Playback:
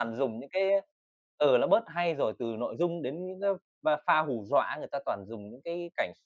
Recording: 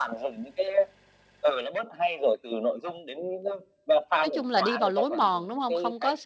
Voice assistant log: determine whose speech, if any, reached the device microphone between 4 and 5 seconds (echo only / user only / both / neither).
both